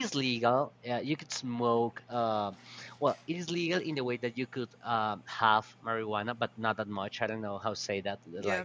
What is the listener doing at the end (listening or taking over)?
taking over